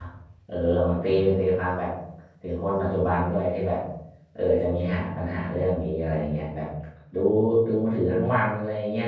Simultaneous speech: No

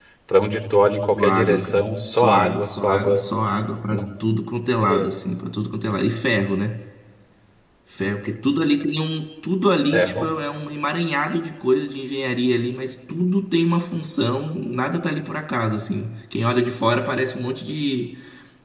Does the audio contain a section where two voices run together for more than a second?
Yes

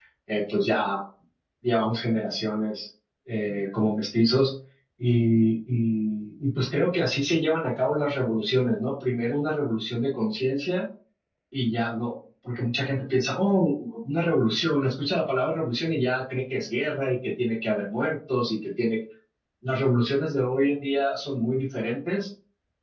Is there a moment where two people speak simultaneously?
No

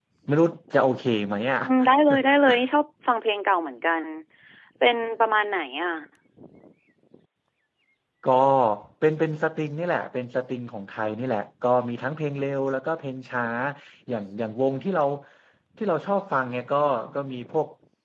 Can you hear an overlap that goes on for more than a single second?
No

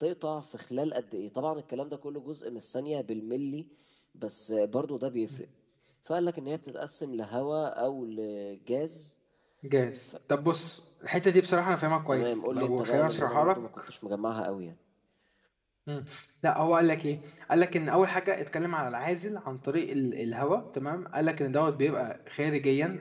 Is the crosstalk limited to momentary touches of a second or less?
No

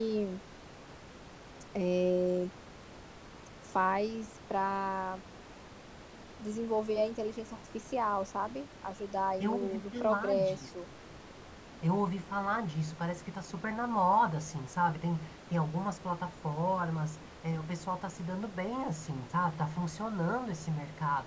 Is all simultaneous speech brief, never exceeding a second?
No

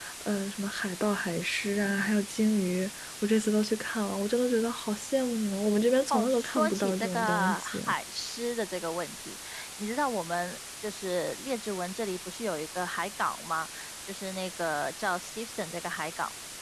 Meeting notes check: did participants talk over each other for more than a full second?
Yes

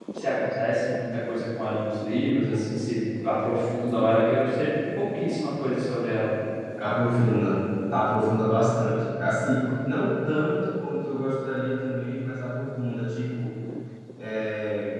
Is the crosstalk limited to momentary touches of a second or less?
Yes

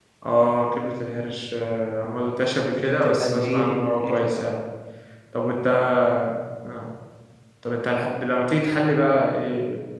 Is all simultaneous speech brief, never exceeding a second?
No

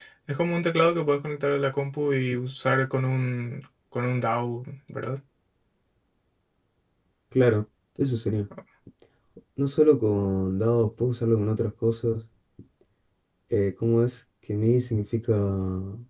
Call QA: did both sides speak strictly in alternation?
Yes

